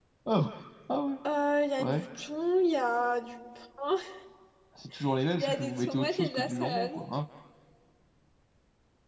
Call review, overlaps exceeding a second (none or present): present